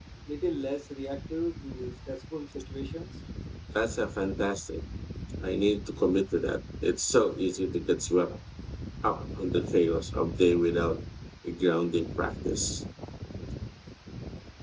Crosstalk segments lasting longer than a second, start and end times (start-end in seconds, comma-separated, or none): none